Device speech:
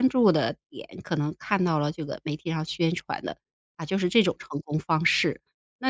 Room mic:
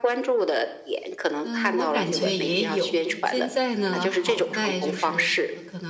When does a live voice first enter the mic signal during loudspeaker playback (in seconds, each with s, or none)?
1.4 s